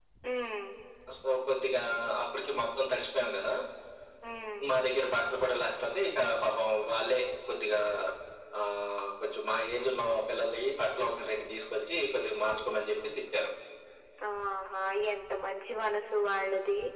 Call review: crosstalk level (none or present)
none